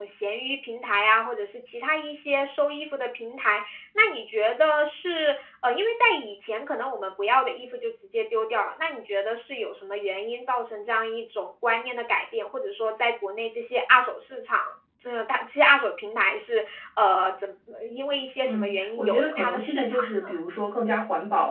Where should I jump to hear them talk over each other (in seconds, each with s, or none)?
18.4 s